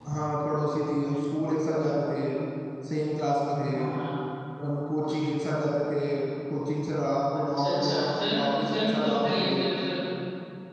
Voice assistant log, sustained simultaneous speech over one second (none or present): present